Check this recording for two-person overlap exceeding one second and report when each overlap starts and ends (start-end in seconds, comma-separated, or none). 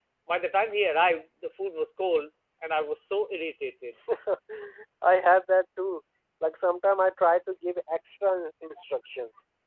none